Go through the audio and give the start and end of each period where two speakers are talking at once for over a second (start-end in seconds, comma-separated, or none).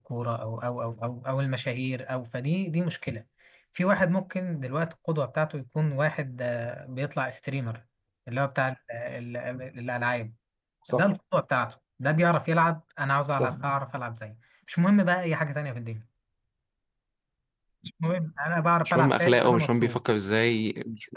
18.8-20.0